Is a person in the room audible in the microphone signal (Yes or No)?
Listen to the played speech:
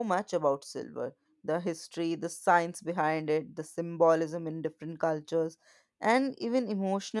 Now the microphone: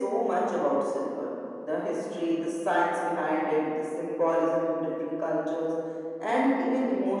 No